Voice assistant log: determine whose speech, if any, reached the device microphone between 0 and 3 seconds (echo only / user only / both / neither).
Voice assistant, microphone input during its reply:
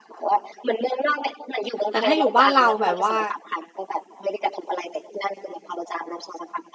both